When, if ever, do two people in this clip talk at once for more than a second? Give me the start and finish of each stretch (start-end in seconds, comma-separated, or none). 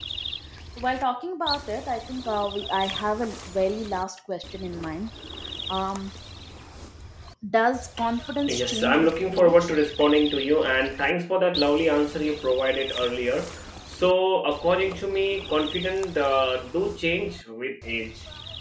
8.5-9.7